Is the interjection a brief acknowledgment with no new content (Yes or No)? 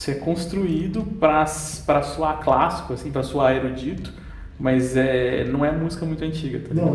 No